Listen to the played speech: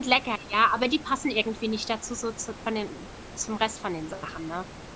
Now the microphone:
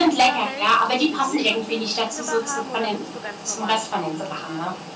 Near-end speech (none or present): present